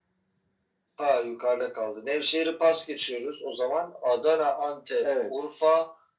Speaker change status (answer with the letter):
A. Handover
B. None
B